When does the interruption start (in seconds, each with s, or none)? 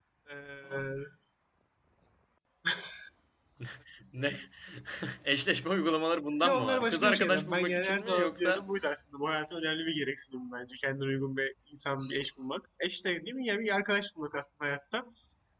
6.4 s